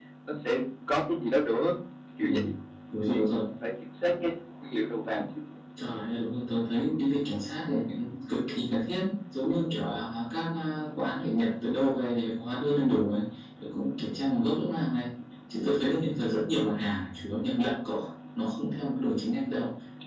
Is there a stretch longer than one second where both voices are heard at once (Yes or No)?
No